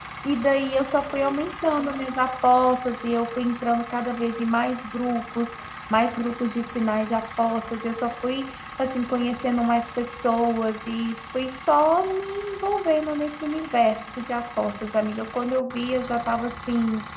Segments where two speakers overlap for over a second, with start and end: none

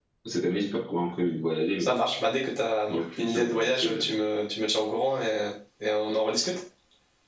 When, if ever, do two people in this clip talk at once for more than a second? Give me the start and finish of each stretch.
2.9-4.2

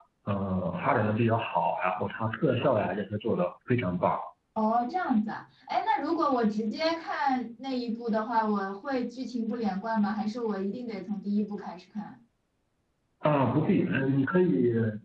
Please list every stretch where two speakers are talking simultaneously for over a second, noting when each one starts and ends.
none

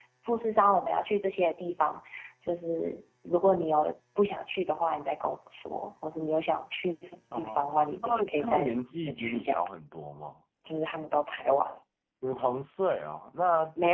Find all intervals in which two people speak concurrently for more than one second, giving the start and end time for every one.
8.0-9.6

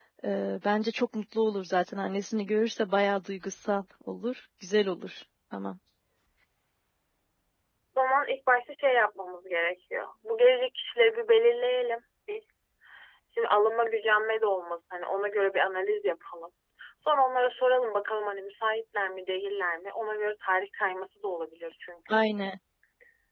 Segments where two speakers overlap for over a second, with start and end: none

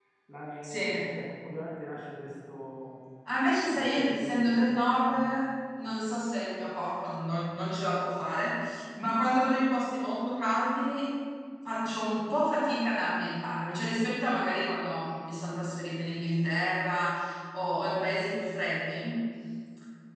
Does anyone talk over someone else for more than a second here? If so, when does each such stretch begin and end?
3.8-5.1

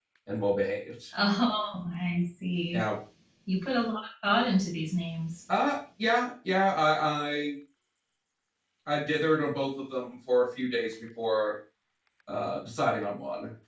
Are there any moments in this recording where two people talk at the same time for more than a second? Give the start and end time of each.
none

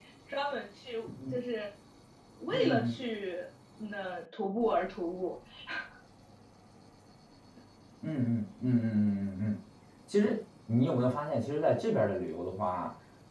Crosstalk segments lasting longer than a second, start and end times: none

